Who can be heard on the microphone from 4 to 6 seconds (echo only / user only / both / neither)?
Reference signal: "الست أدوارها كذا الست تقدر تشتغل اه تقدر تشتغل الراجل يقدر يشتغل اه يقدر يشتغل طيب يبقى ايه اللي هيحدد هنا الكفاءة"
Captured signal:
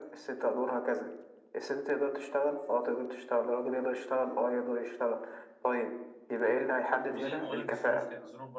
echo only